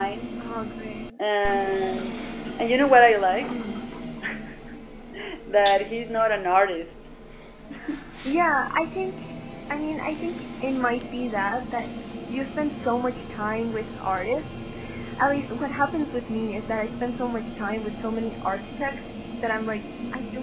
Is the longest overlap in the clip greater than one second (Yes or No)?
No